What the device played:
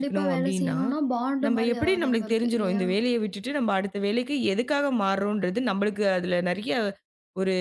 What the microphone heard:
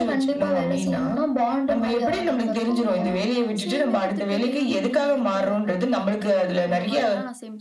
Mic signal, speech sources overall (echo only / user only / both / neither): both